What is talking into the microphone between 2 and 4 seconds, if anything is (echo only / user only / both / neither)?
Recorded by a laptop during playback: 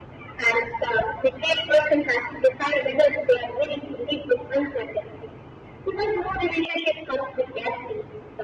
echo only